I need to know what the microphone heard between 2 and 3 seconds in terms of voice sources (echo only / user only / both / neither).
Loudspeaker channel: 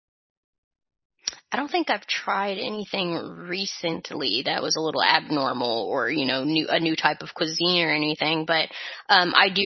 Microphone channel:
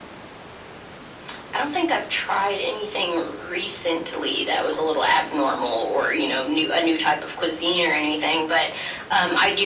echo only